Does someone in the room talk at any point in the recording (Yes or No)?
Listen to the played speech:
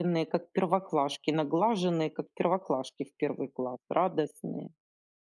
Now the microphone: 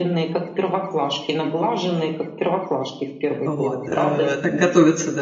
Yes